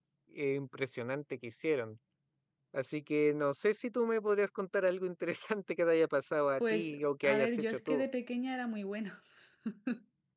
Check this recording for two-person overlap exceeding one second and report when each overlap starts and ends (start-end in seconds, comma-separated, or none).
6.6-8.0